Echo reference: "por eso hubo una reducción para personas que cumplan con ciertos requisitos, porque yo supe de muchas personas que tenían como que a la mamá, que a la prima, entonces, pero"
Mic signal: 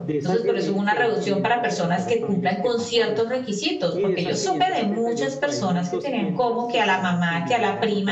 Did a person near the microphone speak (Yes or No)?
Yes